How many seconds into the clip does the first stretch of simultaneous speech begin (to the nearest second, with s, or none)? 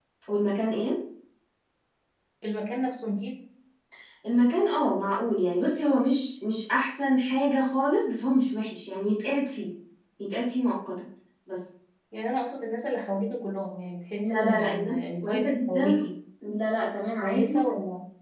14 s